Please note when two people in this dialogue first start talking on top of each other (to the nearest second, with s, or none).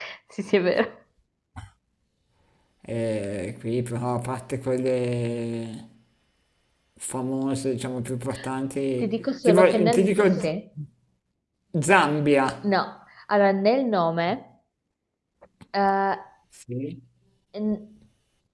9 s